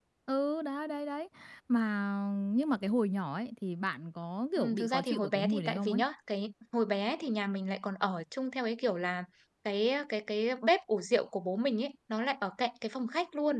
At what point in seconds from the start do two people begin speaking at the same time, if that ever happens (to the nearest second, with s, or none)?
5 s